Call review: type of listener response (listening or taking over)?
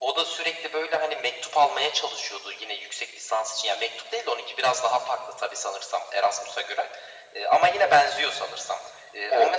listening